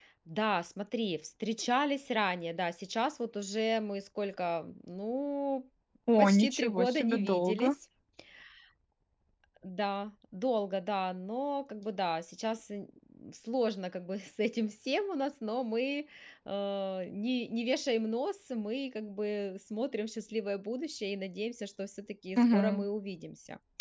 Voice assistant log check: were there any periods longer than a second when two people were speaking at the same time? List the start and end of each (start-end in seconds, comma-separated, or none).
6.2-7.8